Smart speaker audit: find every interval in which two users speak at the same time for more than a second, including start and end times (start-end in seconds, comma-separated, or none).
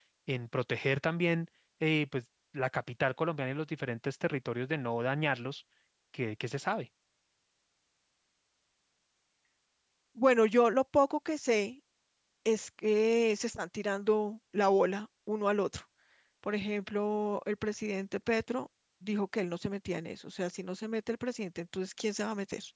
none